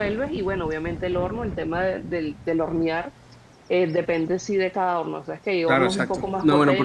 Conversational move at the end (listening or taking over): taking over